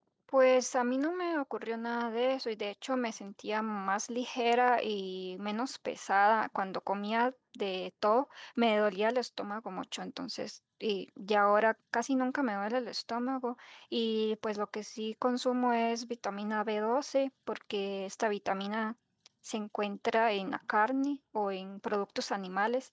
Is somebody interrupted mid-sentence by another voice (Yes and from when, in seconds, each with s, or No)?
No